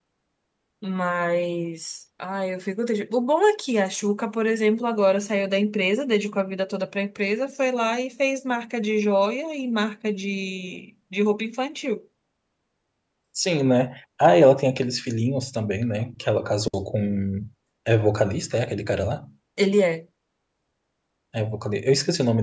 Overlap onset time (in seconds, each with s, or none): none